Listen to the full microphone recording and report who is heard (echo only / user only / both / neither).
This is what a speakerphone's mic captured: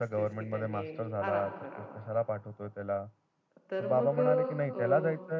both